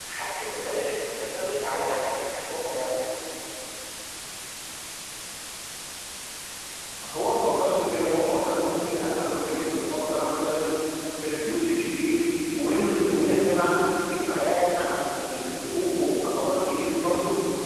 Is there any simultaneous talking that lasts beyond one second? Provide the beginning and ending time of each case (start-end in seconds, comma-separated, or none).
none